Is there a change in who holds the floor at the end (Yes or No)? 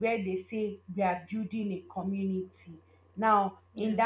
No